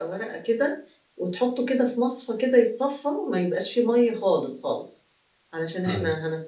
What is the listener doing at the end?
listening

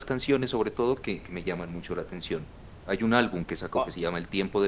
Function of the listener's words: listening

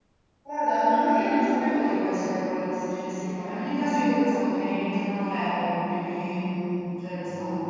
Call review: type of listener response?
listening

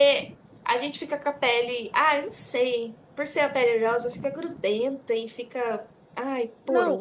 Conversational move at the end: taking over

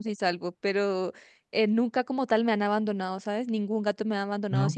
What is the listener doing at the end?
listening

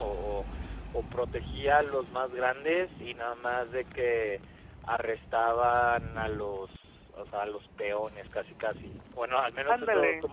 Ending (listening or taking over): listening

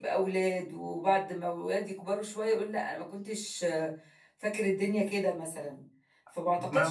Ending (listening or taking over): listening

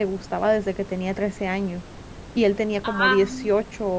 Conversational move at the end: listening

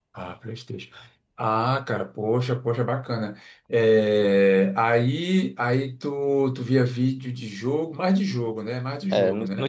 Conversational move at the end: taking over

